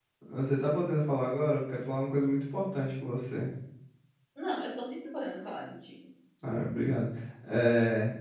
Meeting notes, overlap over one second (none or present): none